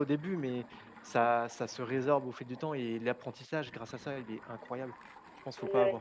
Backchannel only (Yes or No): No